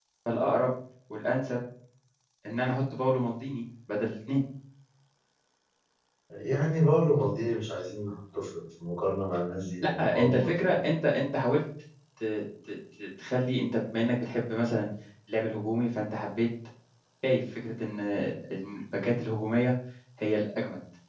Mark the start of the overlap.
9.8 s

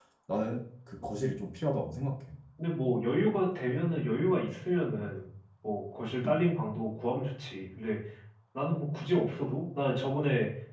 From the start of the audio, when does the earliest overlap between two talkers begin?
none

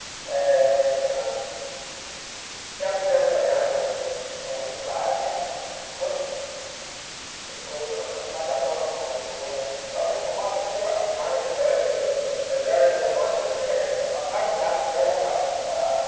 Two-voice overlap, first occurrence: none

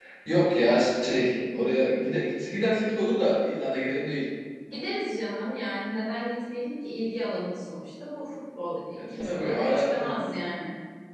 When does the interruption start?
9.0 s

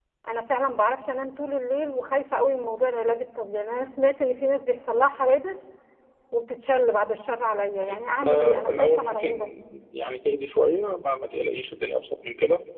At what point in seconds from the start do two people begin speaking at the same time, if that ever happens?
7.8 s

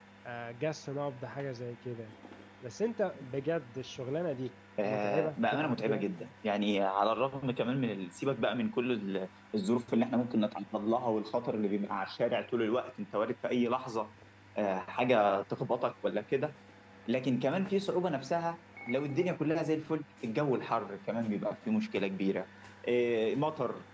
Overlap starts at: 4.8 s

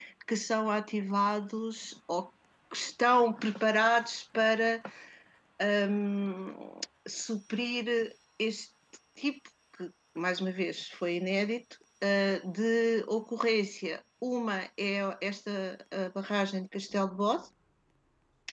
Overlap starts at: none

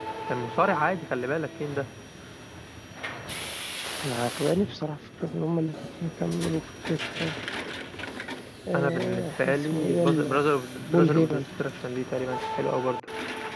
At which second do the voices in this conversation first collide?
8.7 s

